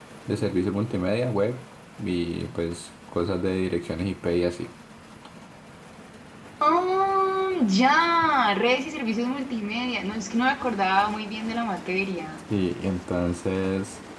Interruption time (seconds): none

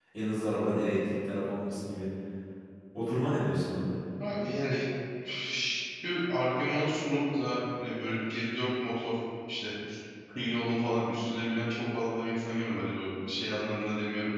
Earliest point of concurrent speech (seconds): none

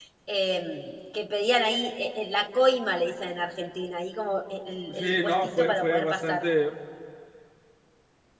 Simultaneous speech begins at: 4.9 s

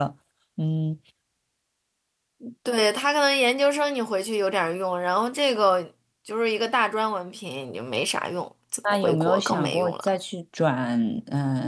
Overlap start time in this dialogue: 8.8 s

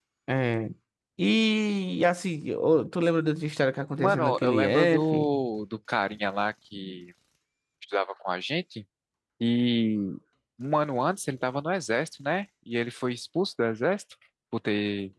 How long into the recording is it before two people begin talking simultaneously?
4.0 s

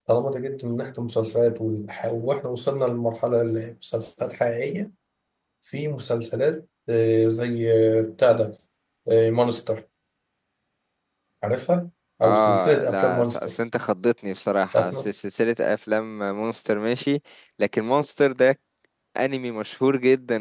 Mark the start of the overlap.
12.2 s

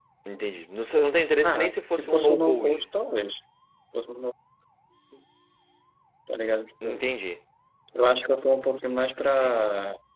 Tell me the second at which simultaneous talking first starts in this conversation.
1.4 s

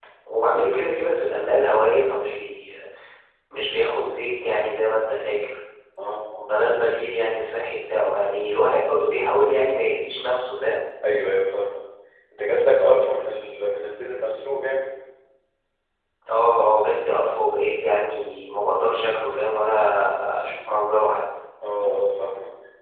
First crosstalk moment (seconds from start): none

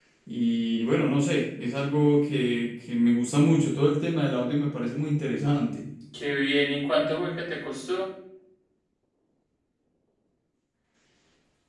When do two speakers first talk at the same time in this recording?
none

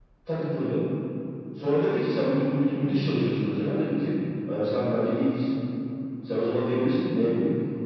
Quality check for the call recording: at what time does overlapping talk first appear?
none

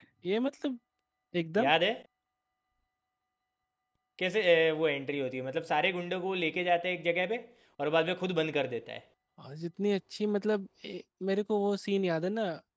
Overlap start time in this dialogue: none

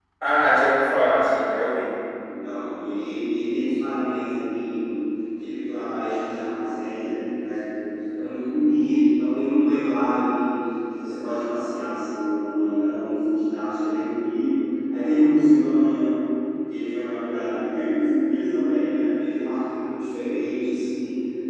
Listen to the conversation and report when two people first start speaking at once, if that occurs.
none

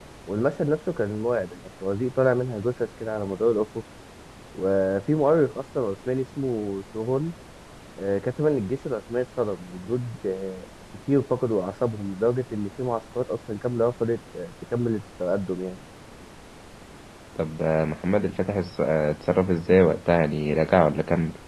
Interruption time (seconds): none

